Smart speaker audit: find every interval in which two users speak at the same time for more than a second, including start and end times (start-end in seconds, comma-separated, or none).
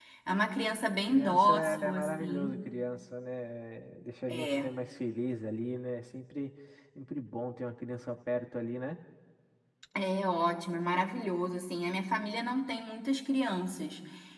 1.1-2.6